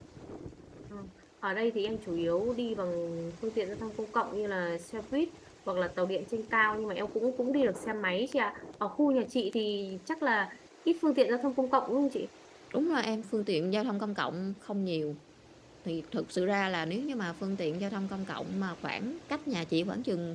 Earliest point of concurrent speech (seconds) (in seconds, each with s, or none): none